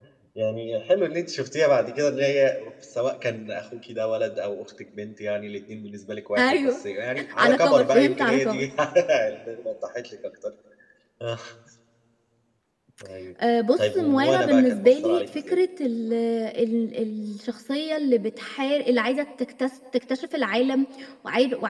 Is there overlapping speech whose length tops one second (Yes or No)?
Yes